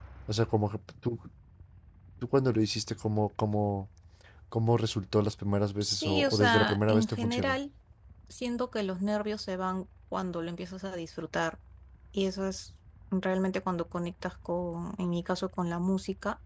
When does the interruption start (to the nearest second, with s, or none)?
6 s